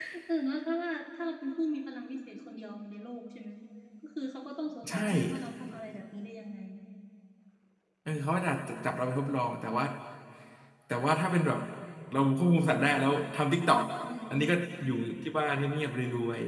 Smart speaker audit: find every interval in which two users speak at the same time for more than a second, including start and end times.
none

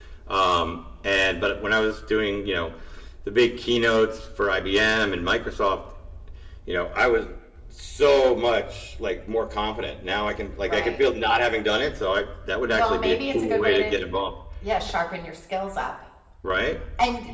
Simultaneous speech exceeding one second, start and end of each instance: 12.7-14.0

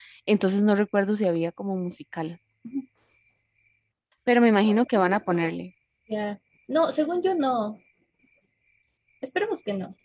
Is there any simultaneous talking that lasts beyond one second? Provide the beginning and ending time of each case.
none

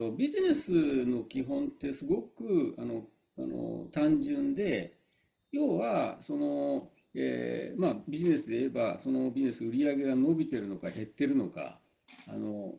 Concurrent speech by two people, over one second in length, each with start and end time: none

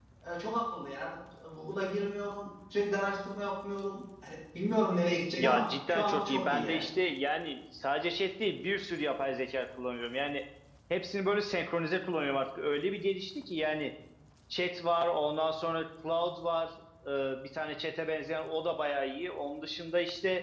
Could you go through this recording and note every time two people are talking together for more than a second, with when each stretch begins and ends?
5.4-6.8

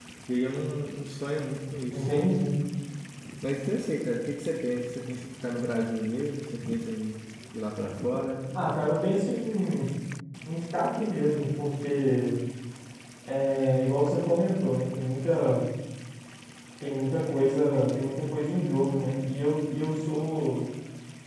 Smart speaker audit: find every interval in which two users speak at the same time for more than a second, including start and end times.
none

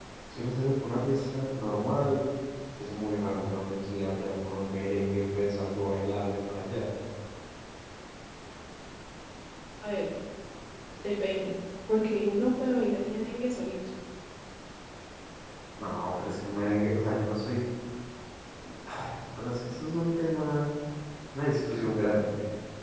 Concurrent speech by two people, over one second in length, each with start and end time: none

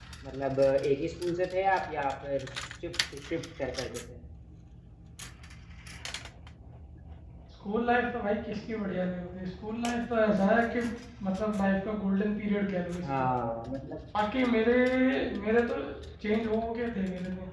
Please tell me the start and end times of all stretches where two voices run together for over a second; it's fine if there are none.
none

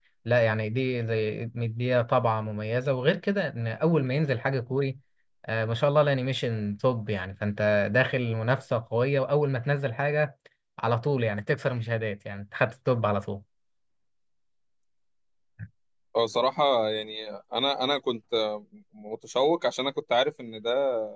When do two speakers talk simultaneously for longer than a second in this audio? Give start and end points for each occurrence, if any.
none

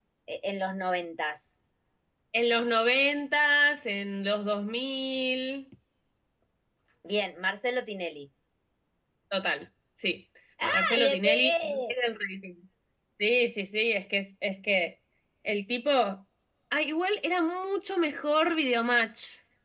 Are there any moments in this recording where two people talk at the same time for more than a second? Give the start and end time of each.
10.6-11.9

